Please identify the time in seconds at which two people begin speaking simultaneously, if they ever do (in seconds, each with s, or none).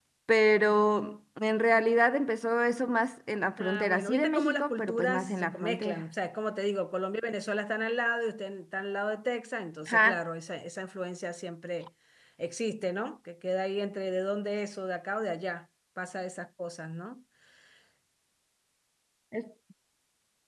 3.6 s